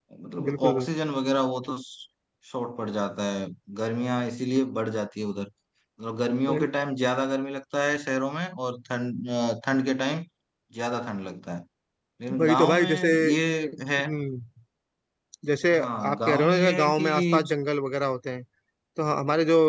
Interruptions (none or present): present